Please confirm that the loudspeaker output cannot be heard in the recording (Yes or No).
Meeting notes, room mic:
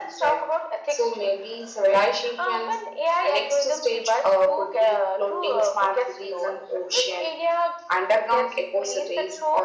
No